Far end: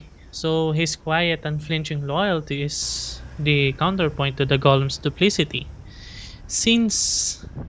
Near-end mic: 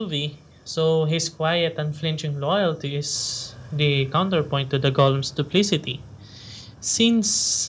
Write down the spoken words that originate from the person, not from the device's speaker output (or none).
none